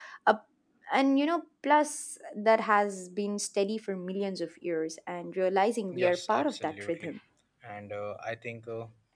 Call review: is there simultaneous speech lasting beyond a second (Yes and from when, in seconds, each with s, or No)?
Yes, from 5.9 s